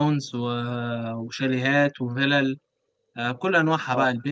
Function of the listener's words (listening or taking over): listening